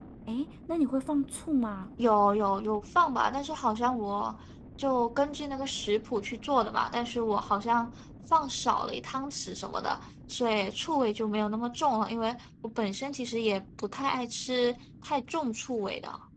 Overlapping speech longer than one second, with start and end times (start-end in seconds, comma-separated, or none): none